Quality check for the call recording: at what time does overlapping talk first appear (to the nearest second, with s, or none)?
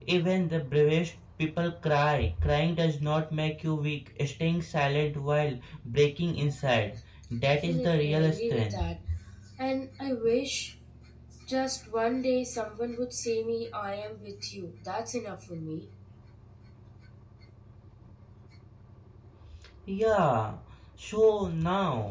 7 s